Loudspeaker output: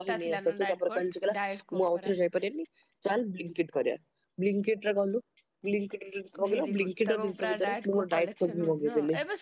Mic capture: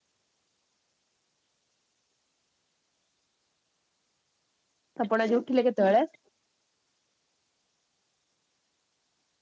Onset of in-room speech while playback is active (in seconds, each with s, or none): 5.1 s